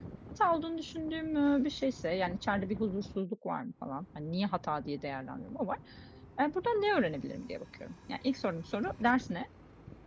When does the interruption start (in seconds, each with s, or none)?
none